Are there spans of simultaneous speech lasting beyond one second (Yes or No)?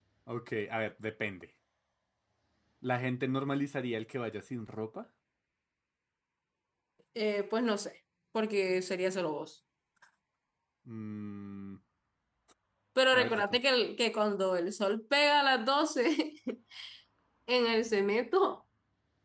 No